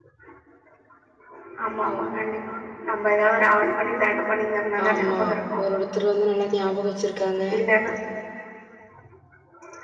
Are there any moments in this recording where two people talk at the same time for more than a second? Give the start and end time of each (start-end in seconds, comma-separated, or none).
none